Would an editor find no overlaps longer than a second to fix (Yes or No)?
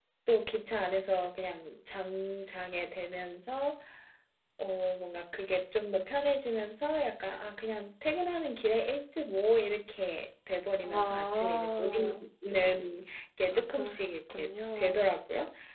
No